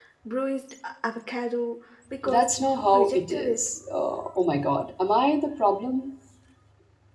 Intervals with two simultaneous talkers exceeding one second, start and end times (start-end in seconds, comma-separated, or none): 2.2-3.6